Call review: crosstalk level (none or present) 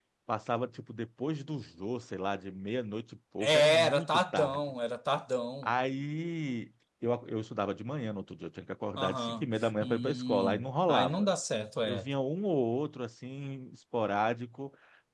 present